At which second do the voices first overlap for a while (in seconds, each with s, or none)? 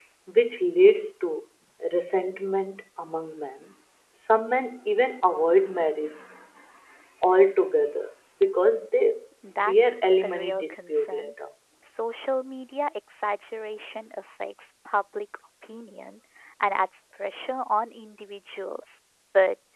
9.4 s